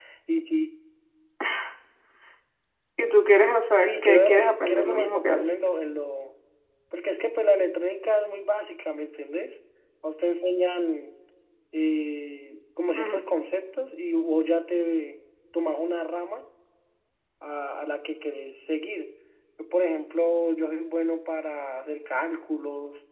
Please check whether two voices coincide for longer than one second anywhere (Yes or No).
Yes